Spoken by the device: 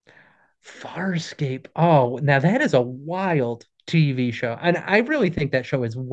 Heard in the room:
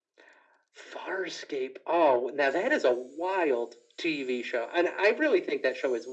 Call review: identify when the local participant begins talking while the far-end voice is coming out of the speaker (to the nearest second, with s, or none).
none